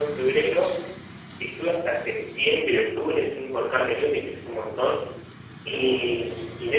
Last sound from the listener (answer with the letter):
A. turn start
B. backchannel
B